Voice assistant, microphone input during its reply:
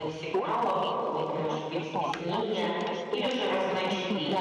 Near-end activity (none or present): present